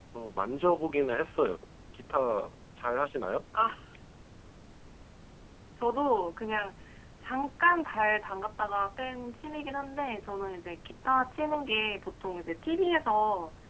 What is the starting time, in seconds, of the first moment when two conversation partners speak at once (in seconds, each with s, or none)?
none